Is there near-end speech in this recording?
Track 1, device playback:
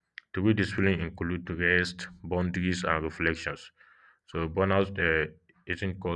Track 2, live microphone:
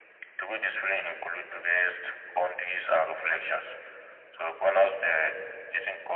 No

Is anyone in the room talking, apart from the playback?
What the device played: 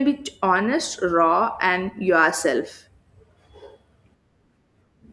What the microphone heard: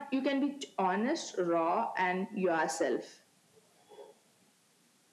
No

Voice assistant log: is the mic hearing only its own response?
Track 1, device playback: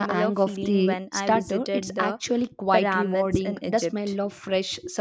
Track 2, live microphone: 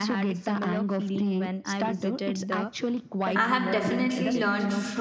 No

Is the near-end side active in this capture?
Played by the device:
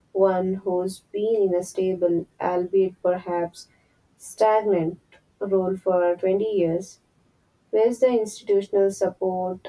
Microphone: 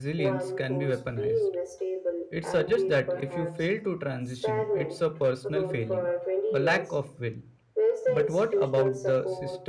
Yes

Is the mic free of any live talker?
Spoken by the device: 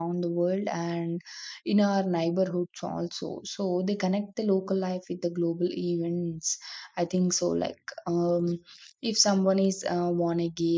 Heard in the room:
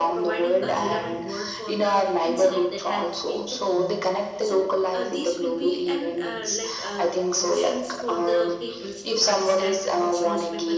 No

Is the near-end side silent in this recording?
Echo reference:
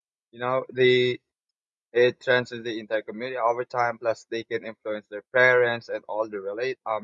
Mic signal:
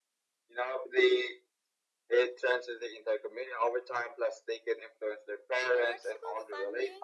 No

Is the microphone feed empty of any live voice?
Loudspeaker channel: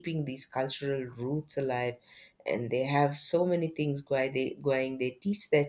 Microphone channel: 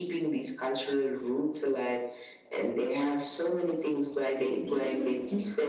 No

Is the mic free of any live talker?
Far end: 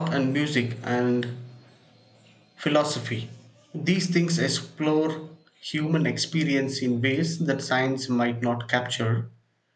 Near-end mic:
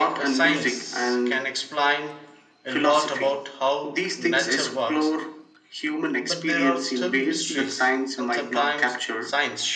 No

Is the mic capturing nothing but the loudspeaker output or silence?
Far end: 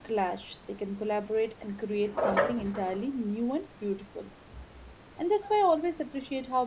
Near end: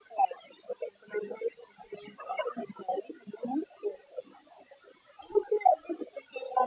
Yes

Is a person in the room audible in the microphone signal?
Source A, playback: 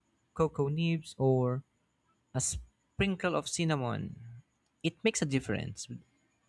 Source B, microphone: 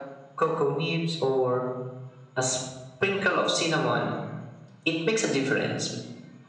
No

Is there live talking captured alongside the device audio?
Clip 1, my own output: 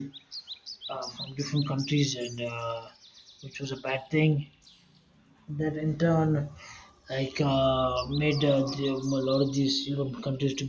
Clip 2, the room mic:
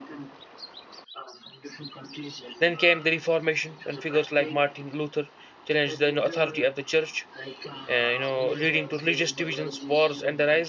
Yes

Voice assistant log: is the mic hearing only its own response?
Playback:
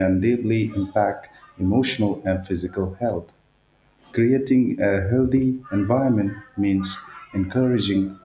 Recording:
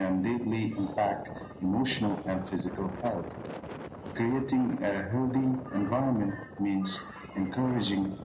Yes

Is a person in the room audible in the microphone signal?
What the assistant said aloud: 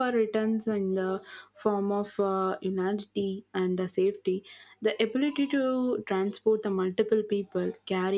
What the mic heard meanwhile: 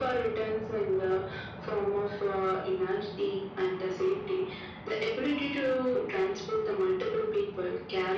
No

